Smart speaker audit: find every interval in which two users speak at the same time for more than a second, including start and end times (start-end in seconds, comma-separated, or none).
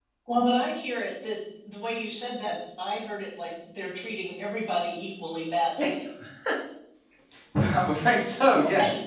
none